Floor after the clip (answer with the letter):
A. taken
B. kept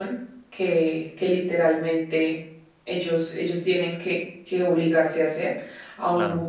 B